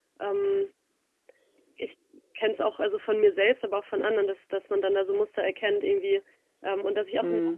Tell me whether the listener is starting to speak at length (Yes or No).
No